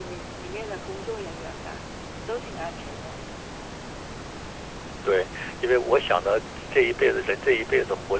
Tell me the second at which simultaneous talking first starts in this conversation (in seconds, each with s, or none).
none